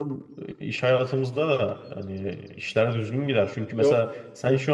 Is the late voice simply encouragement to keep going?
Yes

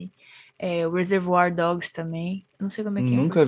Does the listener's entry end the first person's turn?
Yes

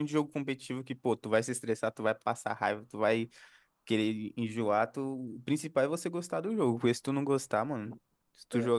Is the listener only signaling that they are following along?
Yes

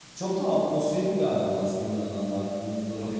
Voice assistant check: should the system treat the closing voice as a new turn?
No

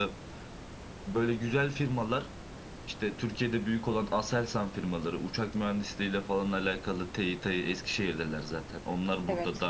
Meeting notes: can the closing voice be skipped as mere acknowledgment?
Yes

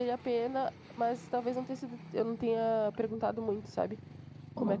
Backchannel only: No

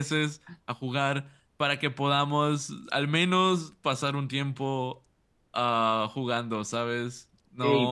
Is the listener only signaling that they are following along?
No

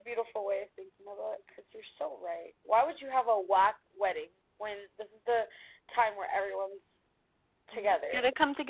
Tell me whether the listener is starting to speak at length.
Yes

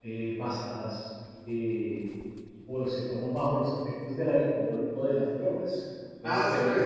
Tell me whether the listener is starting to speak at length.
Yes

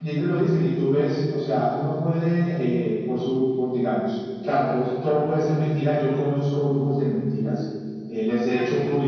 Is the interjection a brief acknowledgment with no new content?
Yes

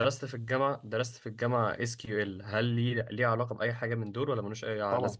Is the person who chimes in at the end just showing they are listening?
No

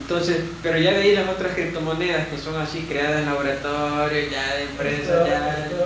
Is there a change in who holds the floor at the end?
Yes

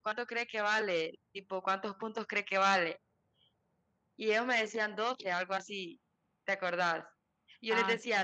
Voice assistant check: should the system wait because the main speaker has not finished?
Yes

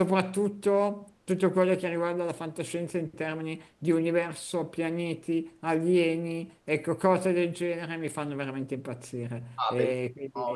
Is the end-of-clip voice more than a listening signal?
Yes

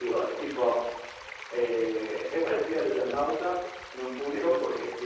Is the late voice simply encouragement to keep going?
Yes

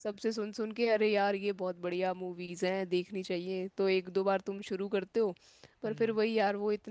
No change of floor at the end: Yes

